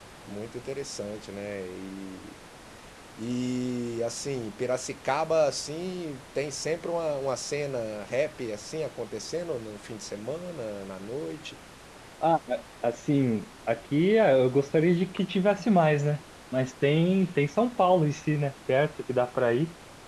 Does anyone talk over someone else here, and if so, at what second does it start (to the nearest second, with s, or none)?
none